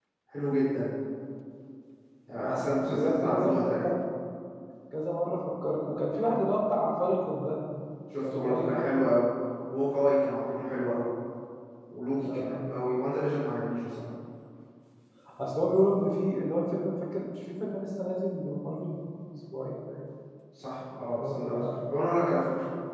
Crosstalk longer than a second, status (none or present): present